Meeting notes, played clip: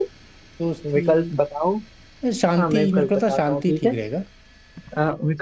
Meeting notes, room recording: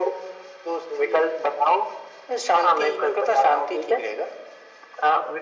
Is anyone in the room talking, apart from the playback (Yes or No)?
No